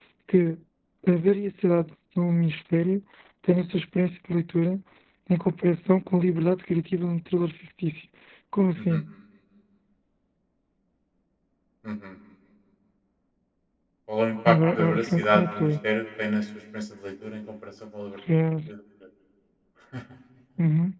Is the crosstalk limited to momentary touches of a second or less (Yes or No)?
No